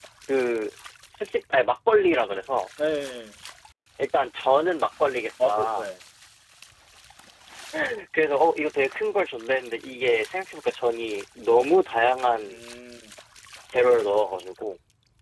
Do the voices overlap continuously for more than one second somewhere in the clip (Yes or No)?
No